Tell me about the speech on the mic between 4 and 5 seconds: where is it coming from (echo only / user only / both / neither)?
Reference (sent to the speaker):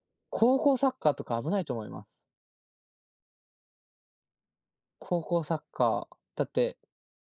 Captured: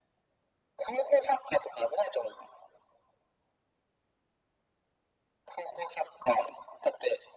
neither